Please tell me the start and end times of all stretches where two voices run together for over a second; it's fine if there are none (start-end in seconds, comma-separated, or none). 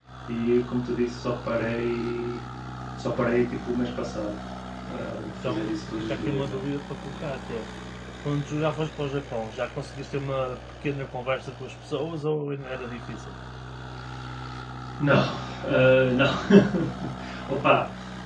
5.3-6.7